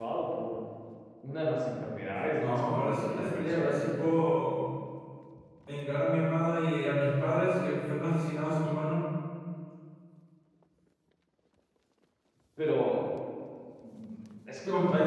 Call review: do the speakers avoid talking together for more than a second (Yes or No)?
No